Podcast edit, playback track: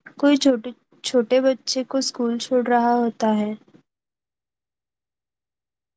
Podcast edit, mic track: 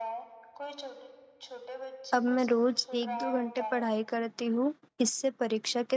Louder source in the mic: user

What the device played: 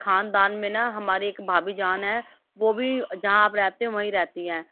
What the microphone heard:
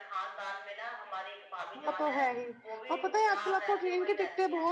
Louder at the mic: user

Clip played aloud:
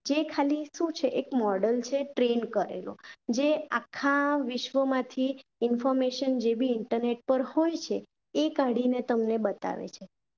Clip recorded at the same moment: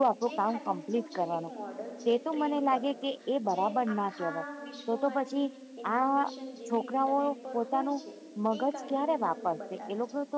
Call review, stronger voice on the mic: user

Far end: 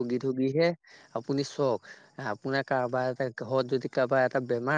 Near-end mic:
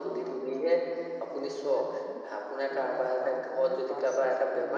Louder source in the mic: echo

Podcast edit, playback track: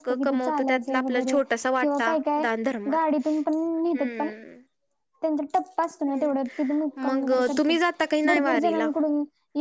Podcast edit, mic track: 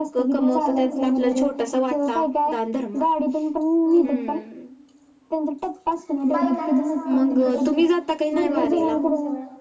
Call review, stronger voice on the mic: echo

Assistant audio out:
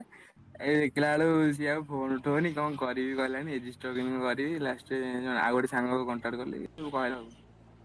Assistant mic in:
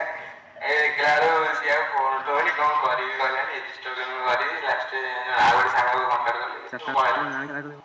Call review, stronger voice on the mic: echo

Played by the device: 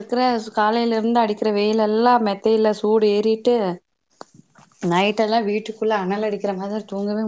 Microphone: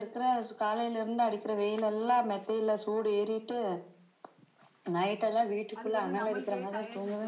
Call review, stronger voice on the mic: echo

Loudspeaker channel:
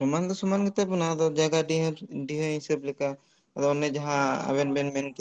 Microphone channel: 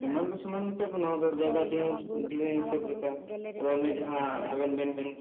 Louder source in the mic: echo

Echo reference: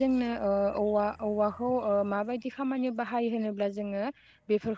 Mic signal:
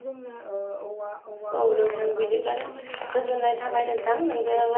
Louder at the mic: user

